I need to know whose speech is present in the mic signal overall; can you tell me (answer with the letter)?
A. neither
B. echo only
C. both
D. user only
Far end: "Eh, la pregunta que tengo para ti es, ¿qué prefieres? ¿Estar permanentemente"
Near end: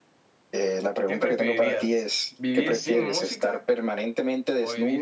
C